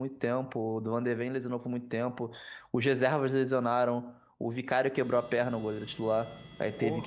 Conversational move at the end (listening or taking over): listening